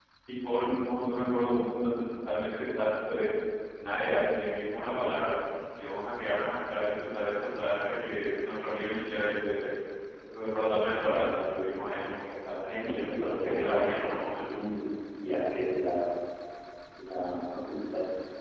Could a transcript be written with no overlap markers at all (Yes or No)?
No